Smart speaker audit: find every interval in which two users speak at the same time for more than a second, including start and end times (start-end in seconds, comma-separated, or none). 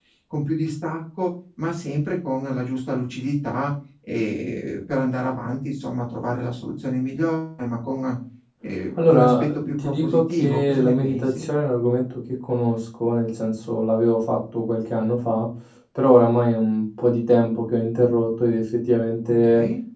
9.0-11.5